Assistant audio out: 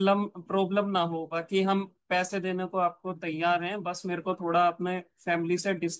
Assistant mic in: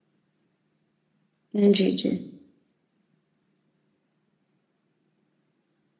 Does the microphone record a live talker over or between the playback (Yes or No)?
Yes